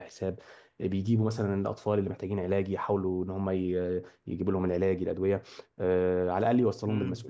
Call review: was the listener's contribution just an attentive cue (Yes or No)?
No